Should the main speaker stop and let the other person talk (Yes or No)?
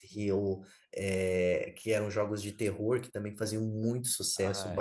No